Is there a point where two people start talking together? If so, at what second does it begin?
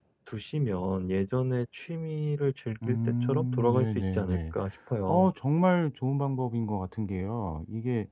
2.8 s

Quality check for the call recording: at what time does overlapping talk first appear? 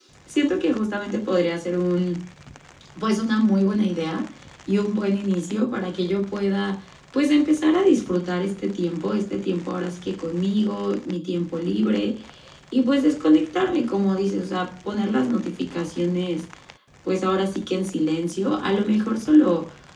none

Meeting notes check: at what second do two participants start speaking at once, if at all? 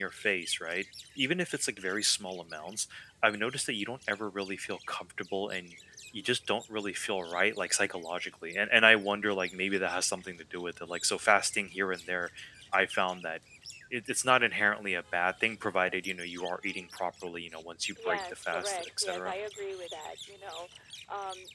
18.0 s

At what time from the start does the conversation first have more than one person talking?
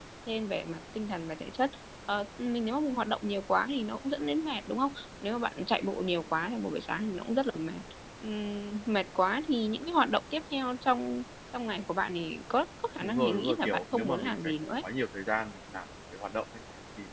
13.0 s

